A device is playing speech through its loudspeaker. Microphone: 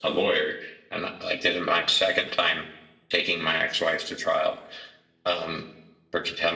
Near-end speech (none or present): none